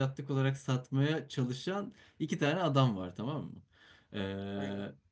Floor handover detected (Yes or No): No